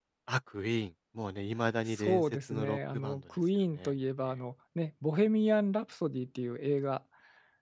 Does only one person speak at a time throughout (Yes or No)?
No